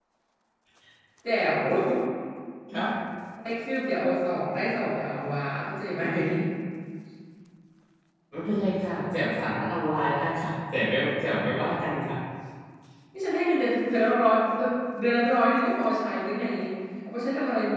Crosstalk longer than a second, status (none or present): none